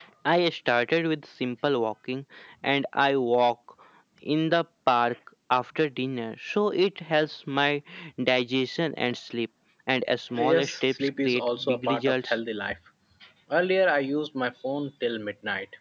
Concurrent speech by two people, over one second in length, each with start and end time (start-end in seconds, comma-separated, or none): 10.3-12.3